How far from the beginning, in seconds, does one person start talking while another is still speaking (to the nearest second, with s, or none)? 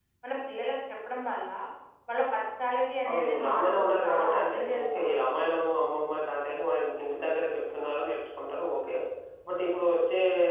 3 s